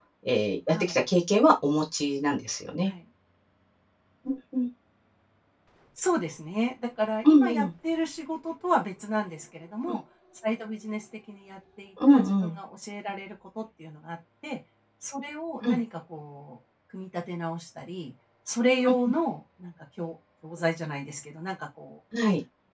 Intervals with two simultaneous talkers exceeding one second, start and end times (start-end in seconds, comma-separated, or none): none